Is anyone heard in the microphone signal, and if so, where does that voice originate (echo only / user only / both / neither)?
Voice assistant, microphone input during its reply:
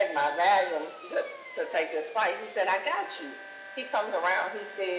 echo only